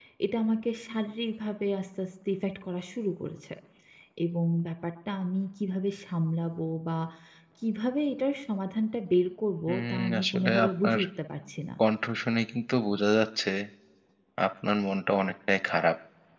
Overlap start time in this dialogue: 9.7 s

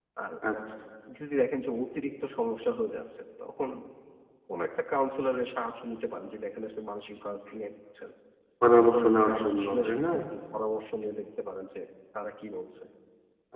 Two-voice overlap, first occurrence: 8.8 s

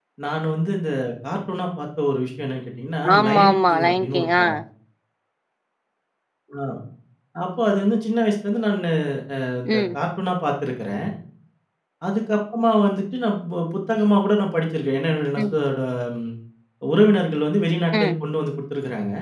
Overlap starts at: 3.2 s

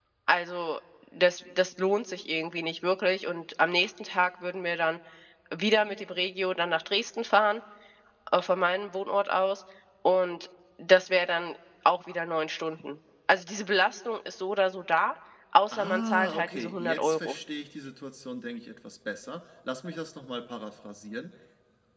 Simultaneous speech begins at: 15.7 s

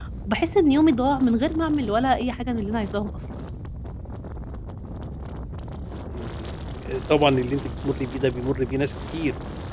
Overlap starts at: none

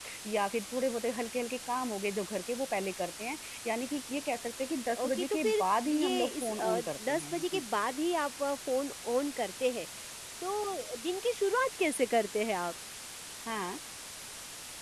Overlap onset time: 5.0 s

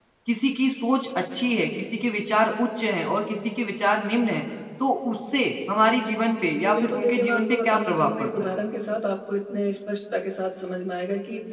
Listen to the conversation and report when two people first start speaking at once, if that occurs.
6.5 s

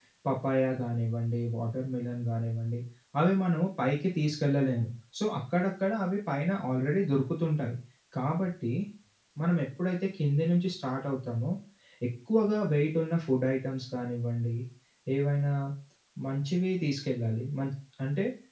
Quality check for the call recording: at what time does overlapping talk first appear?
none

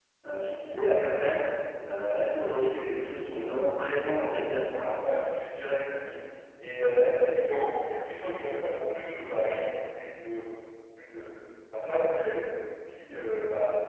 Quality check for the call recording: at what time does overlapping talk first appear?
none

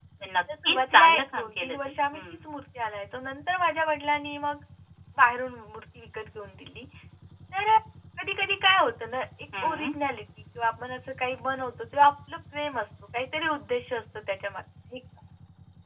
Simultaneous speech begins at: 0.6 s

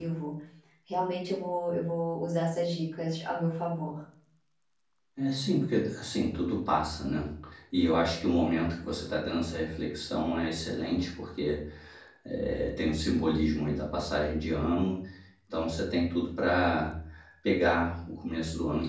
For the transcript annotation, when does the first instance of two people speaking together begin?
none

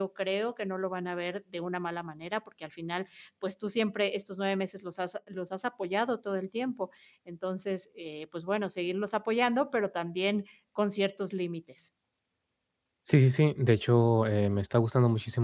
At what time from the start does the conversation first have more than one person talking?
none

